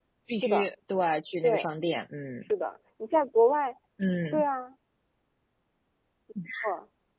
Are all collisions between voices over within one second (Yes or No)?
Yes